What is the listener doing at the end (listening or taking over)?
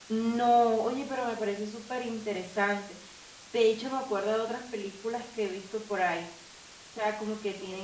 listening